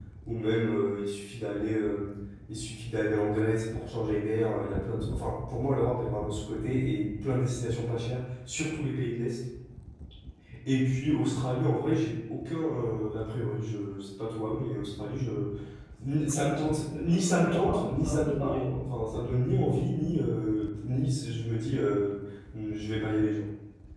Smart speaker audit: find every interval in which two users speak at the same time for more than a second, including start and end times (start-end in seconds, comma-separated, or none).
17.0-18.6